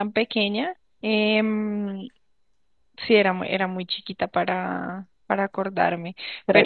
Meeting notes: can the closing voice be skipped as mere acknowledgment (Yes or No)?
Yes